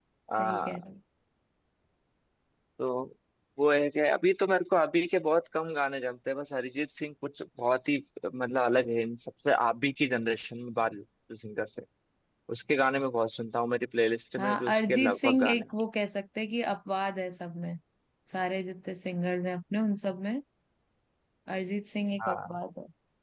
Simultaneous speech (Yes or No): Yes